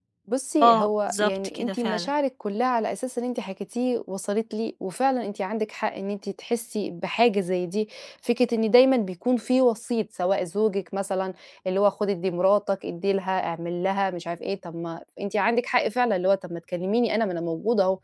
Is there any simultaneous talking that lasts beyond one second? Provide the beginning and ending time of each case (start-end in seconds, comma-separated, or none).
0.6-2.1